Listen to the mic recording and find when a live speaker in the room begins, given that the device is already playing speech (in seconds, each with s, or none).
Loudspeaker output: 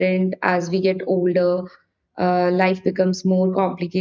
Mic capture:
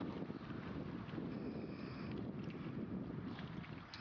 none